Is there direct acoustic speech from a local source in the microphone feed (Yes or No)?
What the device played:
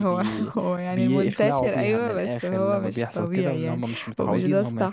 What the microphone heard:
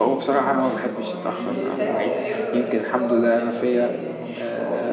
Yes